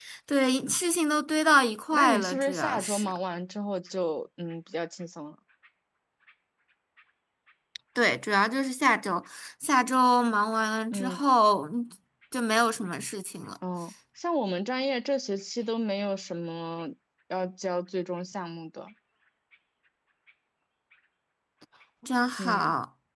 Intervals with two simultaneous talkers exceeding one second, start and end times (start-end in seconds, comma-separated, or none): 1.9-3.1